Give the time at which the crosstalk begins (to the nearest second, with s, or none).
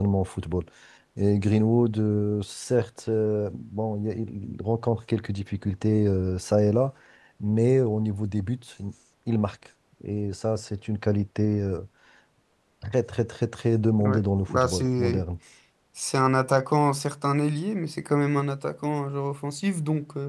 14 s